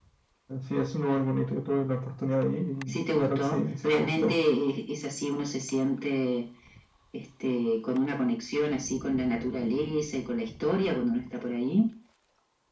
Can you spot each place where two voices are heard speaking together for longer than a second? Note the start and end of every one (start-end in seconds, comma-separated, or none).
2.9-4.4